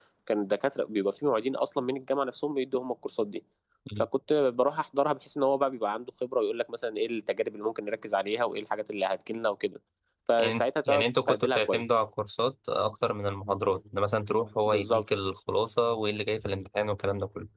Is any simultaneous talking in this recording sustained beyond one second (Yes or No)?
Yes